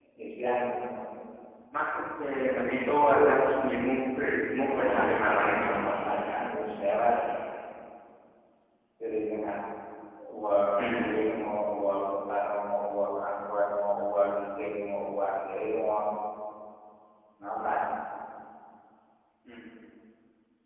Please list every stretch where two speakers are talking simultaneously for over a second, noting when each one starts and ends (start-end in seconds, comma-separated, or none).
4.6-5.9